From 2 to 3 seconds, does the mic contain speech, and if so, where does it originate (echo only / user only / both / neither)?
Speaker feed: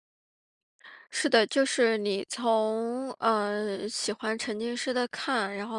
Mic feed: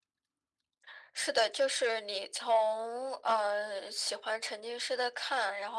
echo only